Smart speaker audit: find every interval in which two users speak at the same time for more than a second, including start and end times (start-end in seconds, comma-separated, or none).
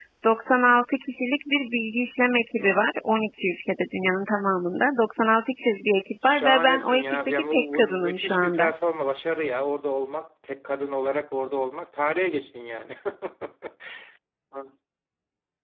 6.2-8.7